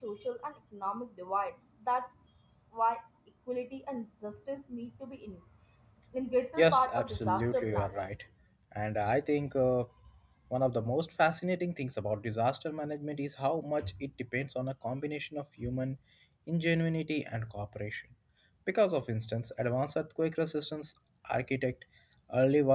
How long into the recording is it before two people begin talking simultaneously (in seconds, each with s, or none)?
6.6 s